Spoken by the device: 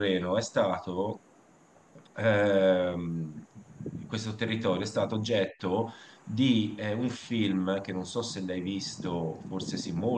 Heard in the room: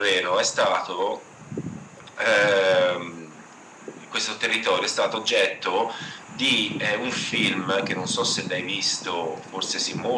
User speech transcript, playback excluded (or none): none